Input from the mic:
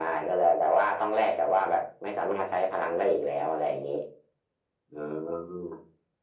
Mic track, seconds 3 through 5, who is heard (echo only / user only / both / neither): echo only